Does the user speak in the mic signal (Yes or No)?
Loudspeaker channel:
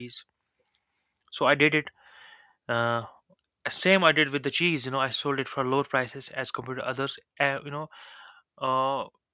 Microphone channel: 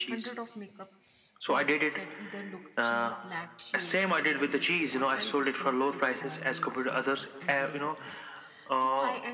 Yes